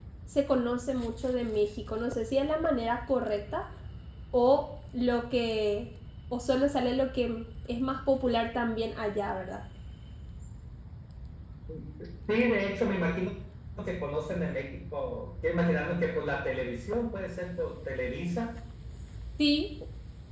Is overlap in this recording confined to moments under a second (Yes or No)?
Yes